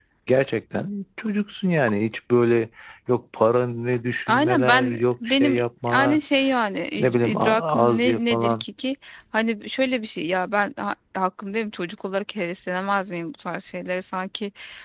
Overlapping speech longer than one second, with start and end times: 4.3-6.2, 7.0-8.6

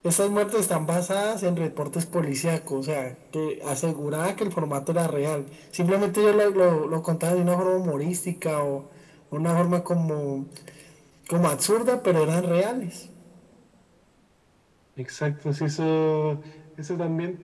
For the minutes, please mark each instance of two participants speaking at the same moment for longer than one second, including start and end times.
none

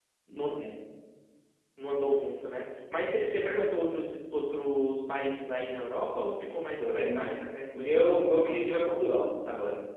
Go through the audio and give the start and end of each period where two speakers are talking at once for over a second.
7.7-8.9

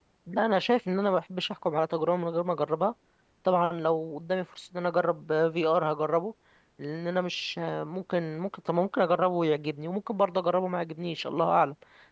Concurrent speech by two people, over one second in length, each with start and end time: none

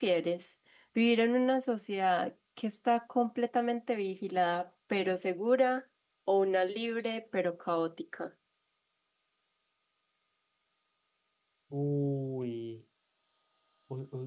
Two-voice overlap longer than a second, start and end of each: none

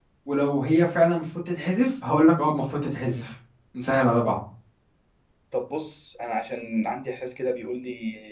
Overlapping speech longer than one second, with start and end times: none

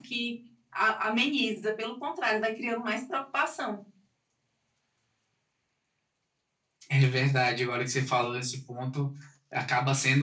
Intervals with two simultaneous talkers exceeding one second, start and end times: none

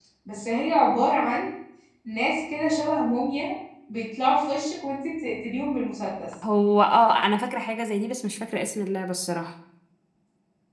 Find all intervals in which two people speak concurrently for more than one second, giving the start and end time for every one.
none

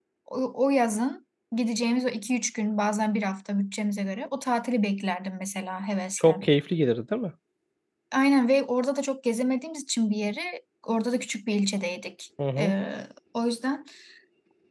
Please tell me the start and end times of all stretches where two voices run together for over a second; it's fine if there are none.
none

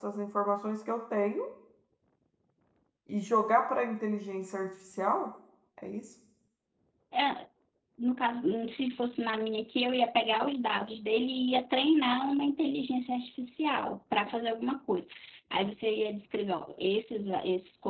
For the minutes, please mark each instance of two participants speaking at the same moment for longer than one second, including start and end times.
none

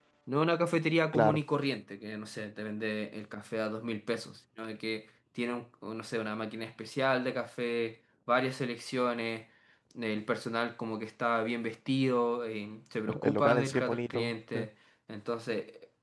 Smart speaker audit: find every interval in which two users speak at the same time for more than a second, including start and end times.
13.2-14.6

